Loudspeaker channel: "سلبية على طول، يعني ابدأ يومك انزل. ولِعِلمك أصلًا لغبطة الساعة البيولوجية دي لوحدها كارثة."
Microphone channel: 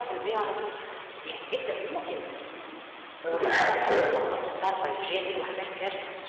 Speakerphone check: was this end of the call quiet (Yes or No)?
No